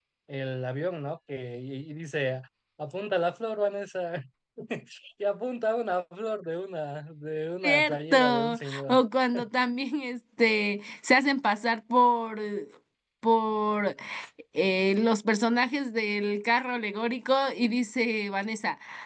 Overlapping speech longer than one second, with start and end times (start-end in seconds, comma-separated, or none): 7.6-9.0